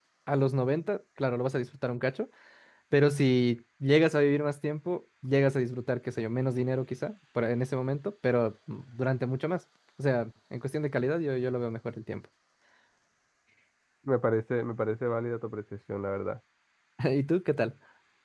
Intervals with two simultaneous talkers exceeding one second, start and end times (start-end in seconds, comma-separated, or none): none